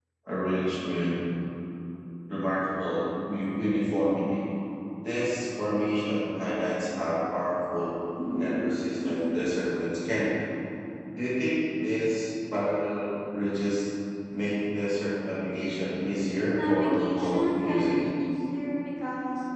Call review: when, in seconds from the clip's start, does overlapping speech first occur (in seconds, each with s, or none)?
16.5 s